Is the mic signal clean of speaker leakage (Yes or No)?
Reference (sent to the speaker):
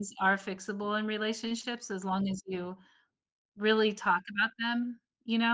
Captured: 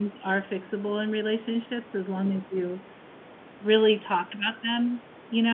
No